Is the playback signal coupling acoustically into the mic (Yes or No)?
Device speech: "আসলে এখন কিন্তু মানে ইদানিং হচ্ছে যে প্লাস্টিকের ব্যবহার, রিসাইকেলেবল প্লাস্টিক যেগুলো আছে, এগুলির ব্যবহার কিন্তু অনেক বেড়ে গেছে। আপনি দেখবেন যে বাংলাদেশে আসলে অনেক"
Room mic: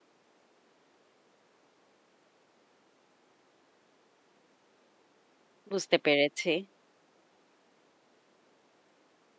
No